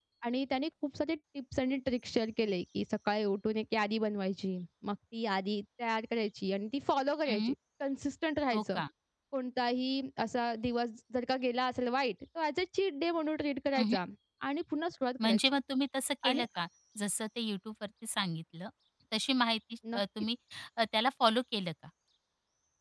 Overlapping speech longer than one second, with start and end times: none

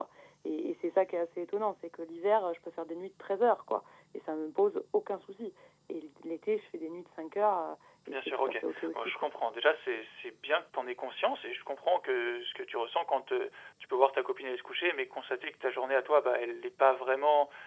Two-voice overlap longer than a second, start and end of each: 8.1-9.3

